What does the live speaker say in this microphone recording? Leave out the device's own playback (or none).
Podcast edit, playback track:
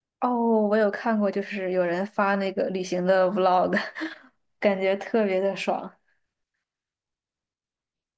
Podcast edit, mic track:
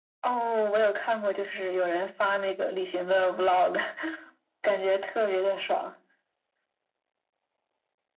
none